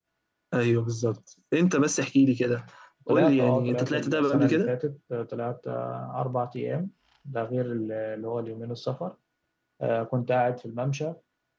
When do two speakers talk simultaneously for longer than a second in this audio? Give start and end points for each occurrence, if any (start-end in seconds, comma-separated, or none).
3.1-4.7